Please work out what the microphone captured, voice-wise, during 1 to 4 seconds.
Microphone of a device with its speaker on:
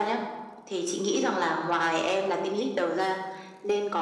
echo only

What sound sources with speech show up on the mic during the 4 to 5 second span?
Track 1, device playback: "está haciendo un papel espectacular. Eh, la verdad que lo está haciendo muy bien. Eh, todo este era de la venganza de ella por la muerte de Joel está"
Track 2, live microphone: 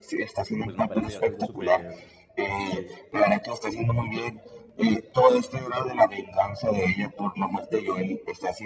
echo only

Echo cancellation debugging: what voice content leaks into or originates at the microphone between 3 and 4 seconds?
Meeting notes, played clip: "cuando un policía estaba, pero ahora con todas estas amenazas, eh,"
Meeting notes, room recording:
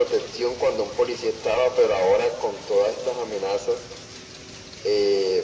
echo only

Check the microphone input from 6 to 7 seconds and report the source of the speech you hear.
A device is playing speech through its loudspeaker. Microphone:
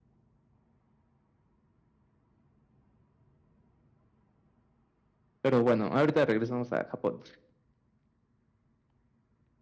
user only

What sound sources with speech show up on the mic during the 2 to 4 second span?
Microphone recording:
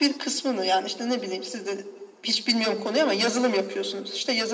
echo only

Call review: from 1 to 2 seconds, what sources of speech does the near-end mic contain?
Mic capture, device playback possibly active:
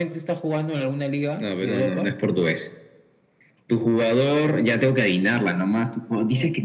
echo only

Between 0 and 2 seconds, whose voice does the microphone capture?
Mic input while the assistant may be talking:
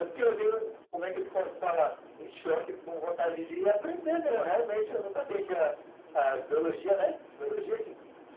echo only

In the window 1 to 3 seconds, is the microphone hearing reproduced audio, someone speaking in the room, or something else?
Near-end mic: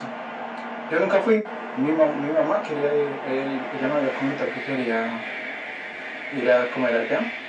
echo only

